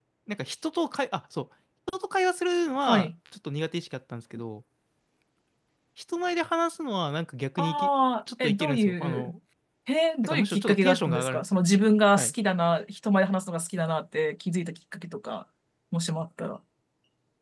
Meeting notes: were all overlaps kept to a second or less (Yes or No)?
No